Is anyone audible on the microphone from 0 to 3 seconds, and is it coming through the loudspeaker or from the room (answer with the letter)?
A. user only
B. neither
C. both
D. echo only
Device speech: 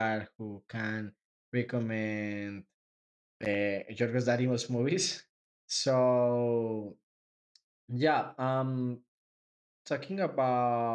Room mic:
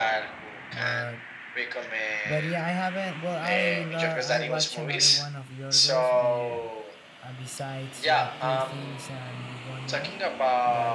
C